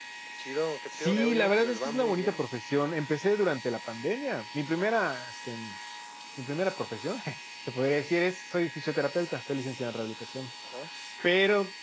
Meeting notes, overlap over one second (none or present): present